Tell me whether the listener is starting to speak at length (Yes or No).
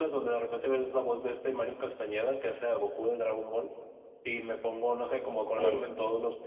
No